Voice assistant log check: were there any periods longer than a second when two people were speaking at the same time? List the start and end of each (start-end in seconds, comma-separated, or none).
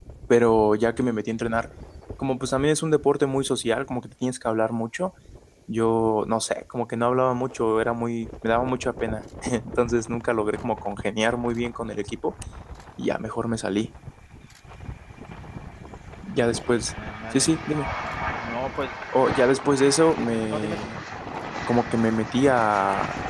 19.6-20.9